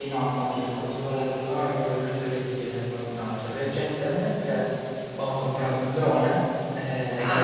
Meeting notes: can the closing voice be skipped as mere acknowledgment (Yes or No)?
Yes